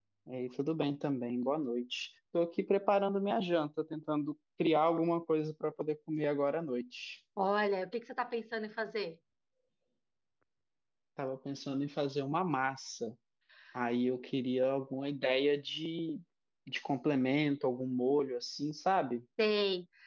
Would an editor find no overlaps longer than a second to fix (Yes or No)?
Yes